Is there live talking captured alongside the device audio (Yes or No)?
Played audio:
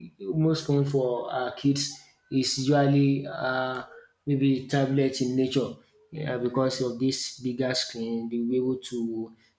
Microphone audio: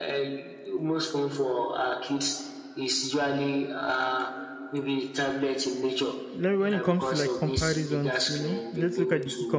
Yes